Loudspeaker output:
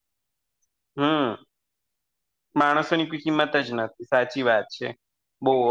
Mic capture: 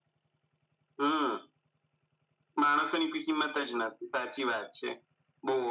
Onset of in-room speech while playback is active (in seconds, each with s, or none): none